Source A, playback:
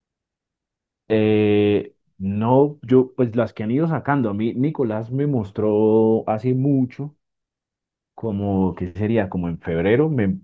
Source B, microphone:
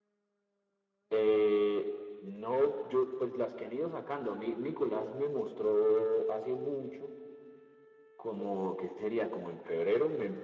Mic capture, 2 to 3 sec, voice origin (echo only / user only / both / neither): echo only